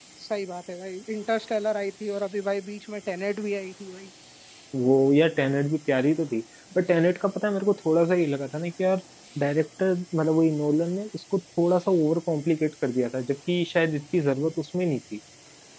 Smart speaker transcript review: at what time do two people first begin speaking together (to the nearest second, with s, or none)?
none